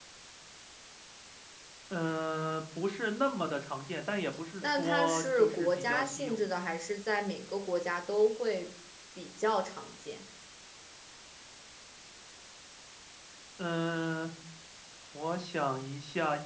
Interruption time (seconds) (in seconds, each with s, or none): 4.6 s